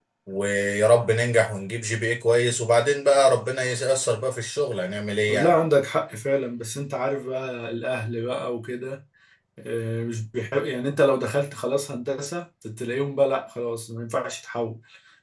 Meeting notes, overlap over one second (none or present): none